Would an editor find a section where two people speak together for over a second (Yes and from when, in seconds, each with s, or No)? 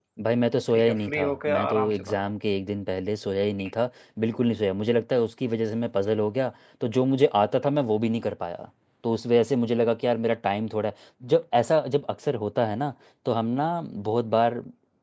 Yes, from 0.7 s